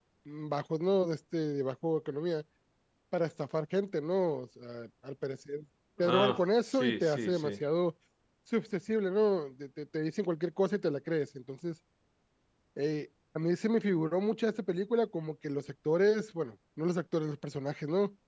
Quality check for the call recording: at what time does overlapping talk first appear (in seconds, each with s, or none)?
6.0 s